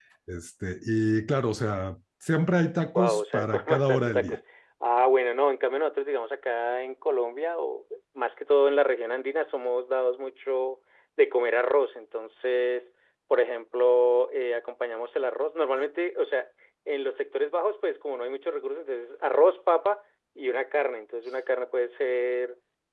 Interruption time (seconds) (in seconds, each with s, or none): 3.0 s